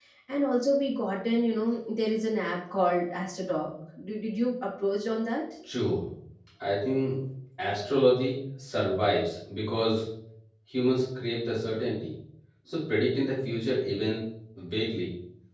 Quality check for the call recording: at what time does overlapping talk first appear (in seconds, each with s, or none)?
none